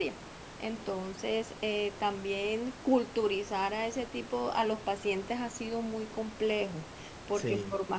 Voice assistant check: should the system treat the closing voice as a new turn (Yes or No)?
No